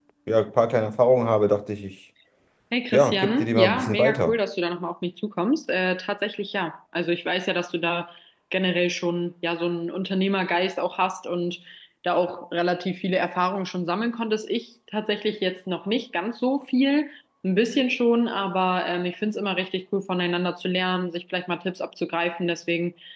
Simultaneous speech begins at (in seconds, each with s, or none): 2.9 s